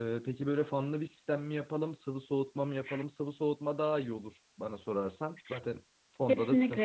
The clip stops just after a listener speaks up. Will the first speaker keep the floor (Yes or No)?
No